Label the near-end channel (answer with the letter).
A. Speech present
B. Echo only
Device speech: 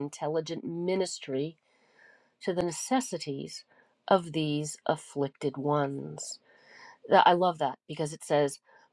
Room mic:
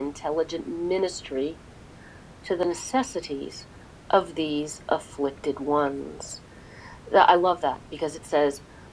B